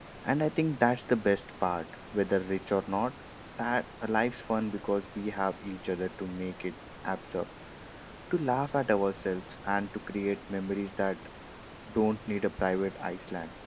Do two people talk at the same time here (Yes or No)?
No